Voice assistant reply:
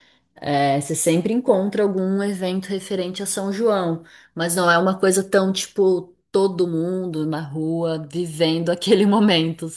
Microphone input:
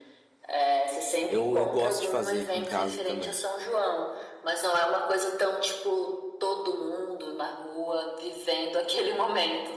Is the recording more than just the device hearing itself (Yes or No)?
Yes